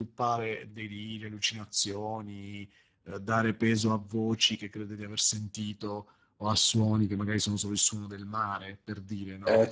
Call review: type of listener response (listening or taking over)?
taking over